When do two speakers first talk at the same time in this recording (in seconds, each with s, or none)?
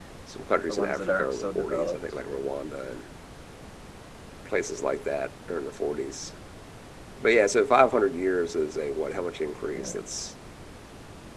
0.7 s